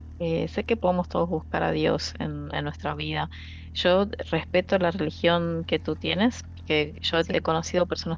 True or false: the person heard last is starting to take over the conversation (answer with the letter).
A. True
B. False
B